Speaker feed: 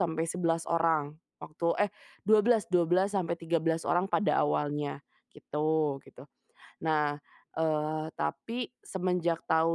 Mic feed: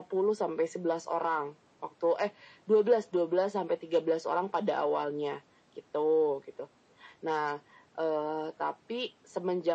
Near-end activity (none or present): none